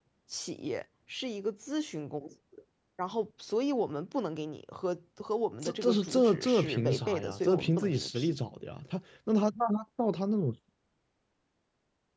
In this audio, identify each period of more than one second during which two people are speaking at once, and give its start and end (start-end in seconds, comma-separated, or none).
5.6-8.4